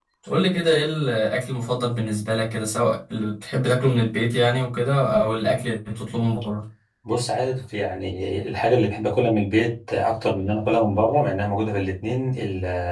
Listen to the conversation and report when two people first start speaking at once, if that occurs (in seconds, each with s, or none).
none